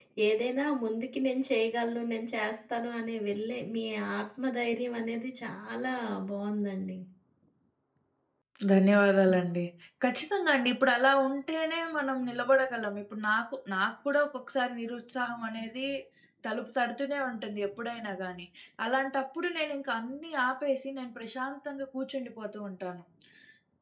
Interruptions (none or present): none